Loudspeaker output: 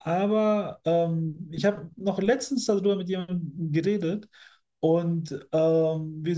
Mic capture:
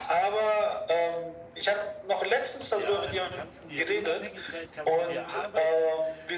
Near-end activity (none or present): present